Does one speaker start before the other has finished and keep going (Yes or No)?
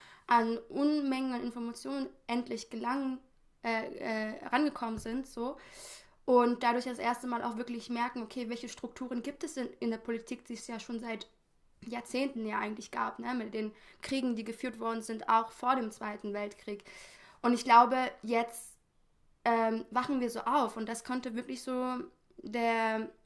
No